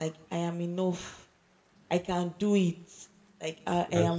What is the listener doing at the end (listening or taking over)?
listening